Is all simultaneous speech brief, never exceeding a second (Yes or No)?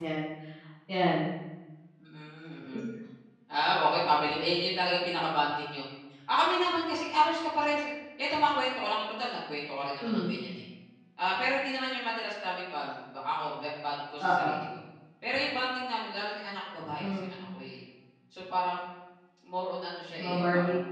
Yes